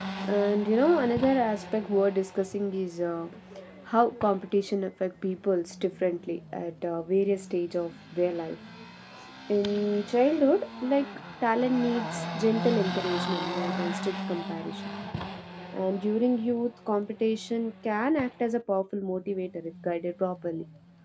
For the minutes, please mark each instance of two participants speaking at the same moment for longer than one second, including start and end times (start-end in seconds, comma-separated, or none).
none